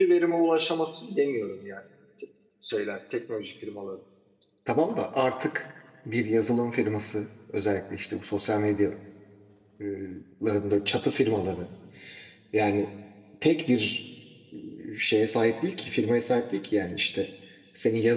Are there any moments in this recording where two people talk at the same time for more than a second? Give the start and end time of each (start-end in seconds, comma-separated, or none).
none